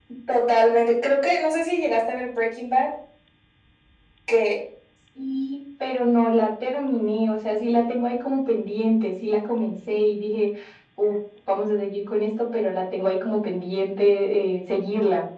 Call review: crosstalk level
none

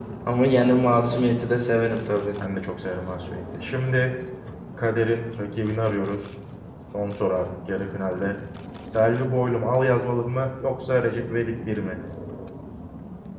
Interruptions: none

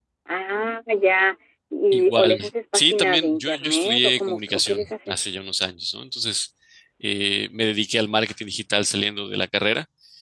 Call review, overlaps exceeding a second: present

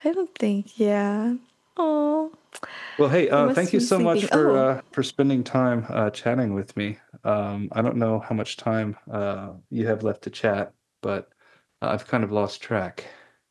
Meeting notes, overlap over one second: present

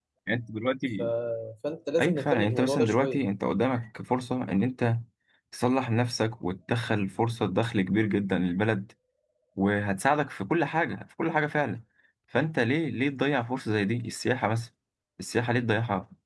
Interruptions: present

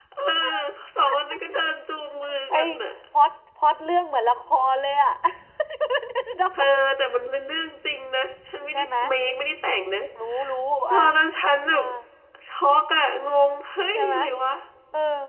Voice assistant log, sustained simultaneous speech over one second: none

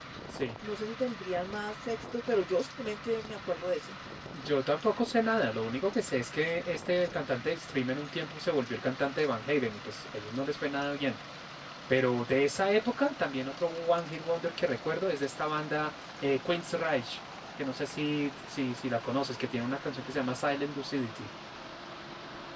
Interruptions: none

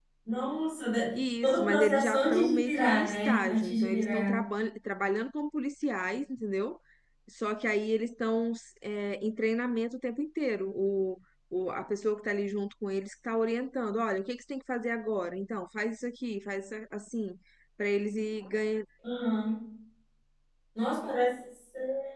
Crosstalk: present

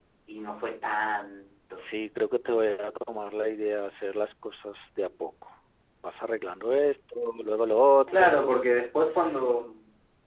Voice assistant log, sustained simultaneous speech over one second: none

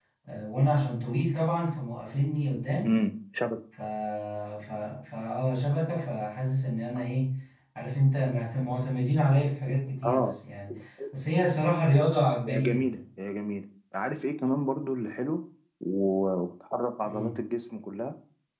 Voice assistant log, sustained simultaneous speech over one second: none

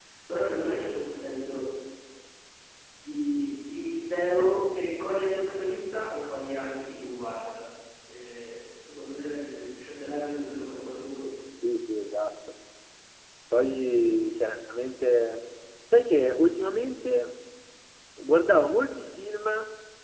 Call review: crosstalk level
none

